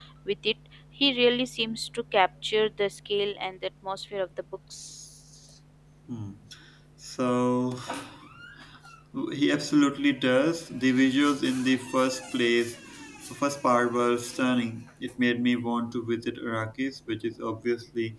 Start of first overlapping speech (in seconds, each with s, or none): none